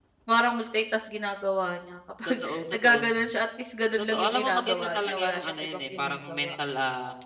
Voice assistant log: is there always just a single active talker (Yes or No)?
No